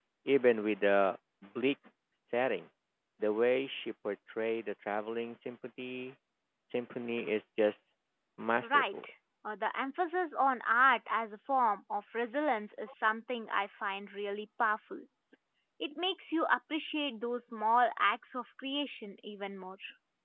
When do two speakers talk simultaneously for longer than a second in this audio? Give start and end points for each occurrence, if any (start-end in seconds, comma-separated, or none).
none